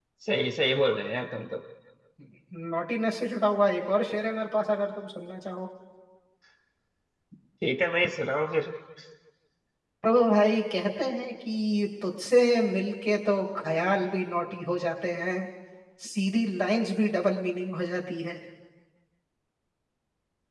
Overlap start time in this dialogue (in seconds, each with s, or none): none